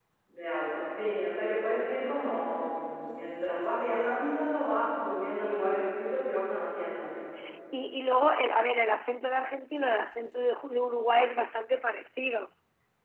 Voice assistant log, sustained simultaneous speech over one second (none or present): none